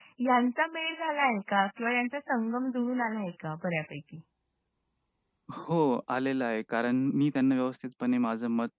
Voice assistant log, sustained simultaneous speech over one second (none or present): none